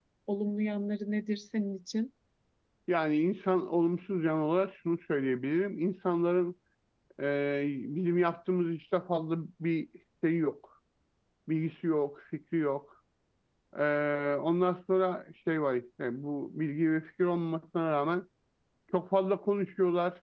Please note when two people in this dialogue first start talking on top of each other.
none

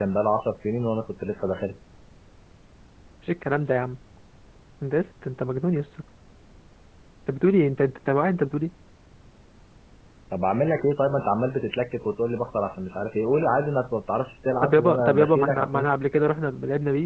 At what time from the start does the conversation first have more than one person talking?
14.6 s

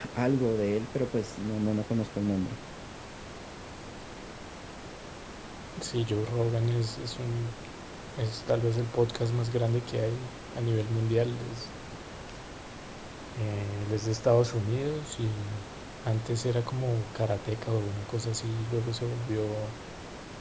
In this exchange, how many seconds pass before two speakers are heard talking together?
none

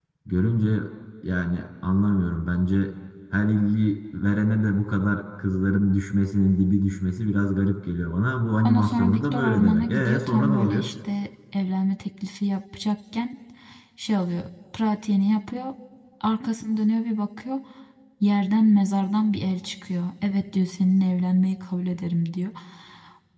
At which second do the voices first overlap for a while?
8.6 s

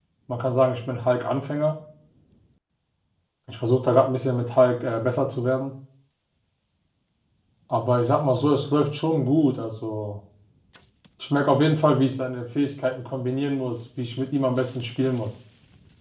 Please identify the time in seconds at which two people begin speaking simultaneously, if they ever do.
none

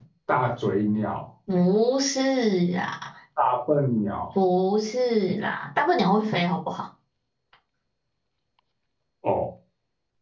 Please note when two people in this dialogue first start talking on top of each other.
none

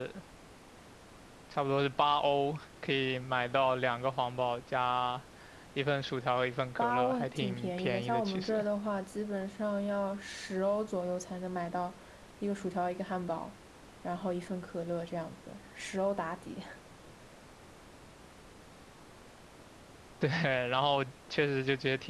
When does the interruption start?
6.8 s

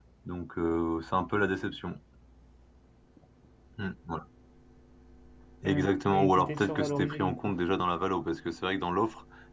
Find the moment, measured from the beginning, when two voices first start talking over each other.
5.6 s

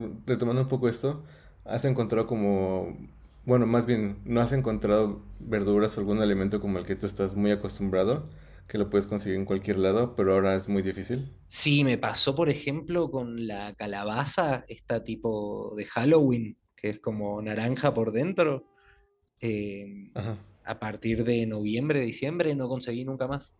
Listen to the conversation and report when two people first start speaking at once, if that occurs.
none

